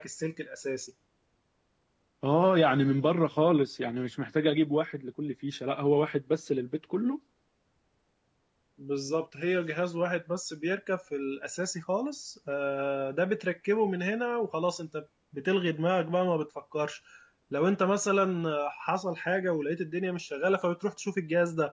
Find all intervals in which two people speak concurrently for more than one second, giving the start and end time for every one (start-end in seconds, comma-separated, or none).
none